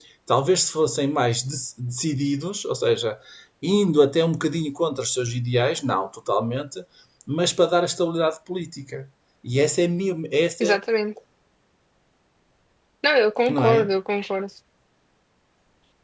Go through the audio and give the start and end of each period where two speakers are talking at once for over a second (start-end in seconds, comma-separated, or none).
none